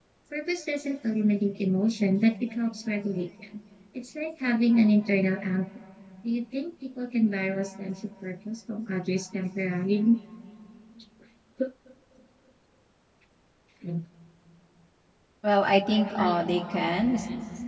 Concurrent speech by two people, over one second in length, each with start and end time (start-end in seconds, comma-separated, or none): none